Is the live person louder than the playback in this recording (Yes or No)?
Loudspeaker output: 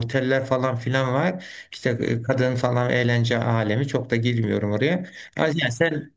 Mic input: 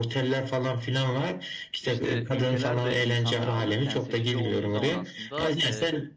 No